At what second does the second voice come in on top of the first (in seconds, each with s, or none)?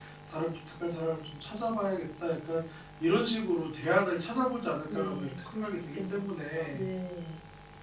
4.9 s